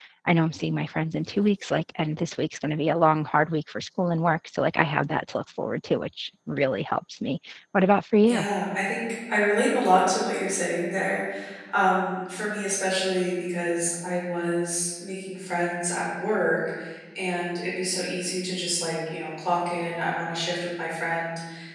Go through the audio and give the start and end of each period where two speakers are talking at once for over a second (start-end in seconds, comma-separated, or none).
none